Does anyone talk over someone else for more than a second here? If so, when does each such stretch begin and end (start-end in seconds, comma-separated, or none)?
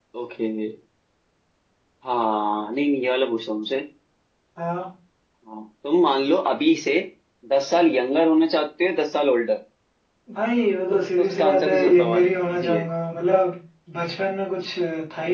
11.2-12.8